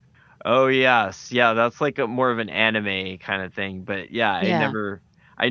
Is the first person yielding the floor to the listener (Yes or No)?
No